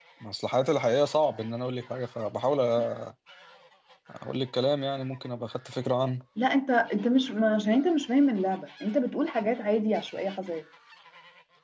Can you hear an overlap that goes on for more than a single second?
No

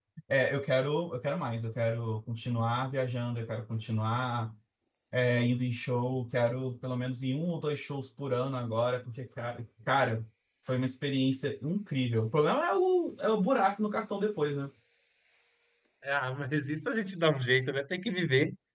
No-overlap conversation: Yes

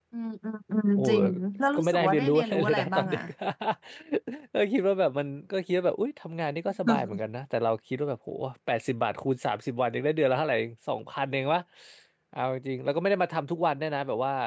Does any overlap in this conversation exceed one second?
Yes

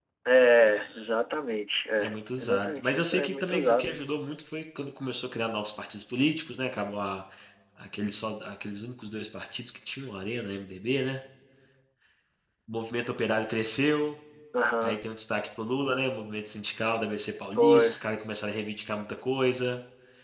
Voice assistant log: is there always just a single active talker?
No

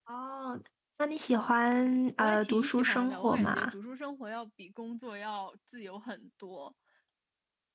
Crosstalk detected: Yes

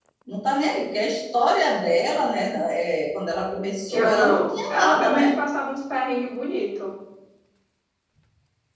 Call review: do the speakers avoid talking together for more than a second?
No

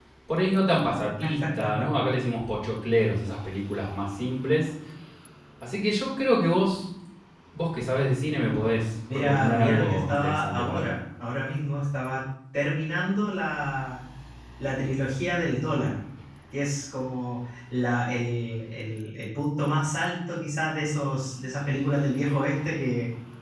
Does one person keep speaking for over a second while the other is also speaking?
Yes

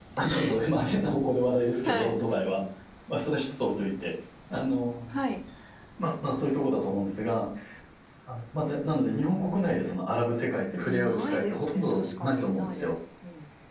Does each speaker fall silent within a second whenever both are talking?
No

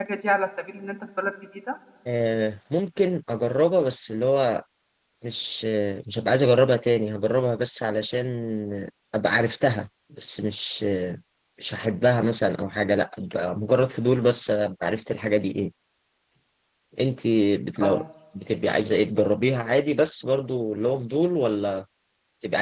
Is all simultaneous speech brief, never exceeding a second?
Yes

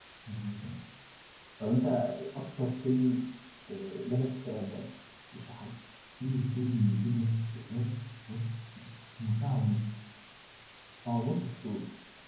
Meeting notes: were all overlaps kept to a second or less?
Yes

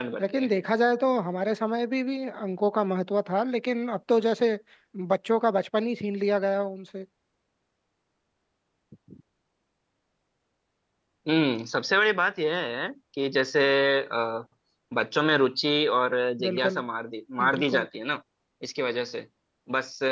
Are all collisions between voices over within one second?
Yes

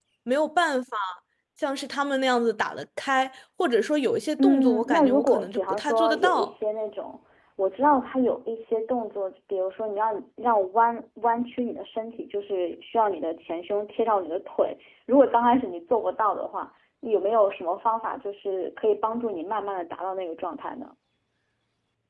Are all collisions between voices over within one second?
No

